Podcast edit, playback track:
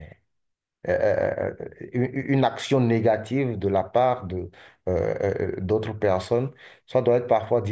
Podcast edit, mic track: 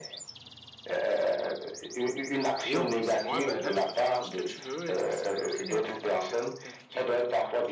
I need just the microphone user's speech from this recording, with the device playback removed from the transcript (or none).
Et au bout de six mois, bah, là, tu peux faire tout ce que tu veux et ça va être très très très très très compliqué euh,